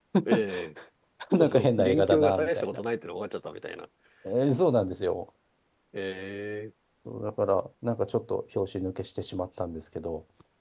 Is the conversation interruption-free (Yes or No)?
No